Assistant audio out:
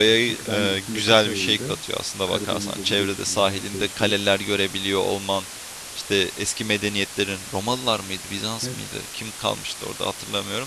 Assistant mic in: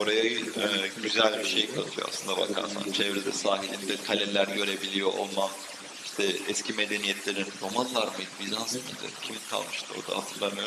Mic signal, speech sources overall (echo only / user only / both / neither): echo only